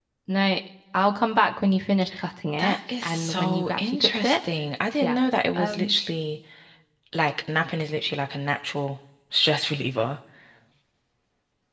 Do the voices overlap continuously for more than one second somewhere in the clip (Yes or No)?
Yes